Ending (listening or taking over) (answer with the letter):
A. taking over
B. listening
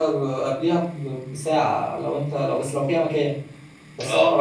B